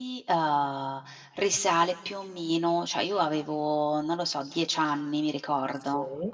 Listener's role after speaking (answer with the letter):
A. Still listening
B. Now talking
A